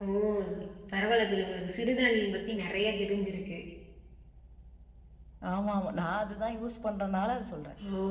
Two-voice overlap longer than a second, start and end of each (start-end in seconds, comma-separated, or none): none